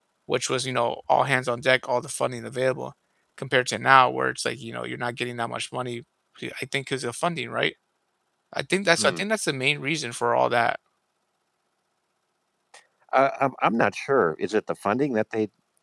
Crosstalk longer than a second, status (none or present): none